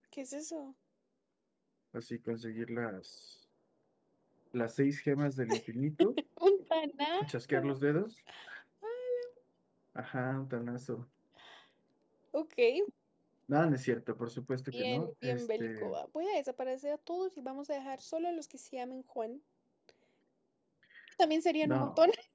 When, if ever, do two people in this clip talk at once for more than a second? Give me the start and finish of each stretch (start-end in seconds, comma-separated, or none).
14.7-15.9